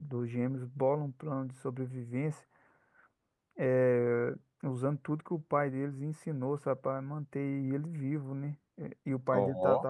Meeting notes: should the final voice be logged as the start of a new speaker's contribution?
No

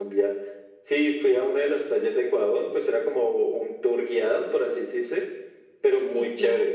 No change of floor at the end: Yes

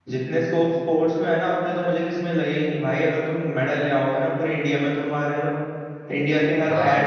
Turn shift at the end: No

